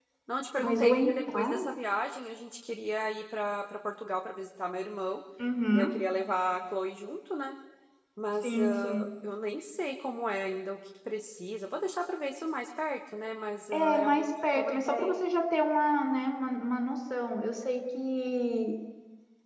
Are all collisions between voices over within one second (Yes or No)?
No